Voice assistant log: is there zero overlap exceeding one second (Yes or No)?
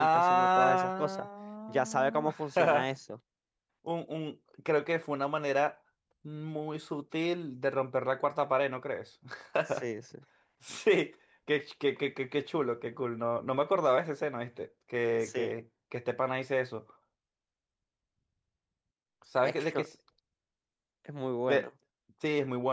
No